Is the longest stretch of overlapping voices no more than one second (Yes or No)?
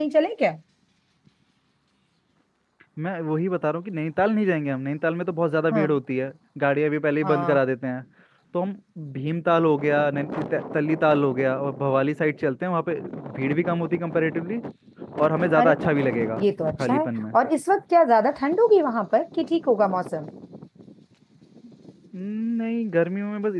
Yes